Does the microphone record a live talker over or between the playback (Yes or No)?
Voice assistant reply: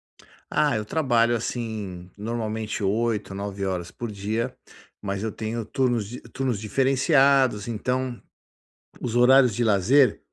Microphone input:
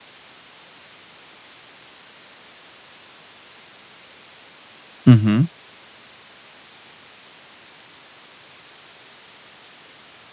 Yes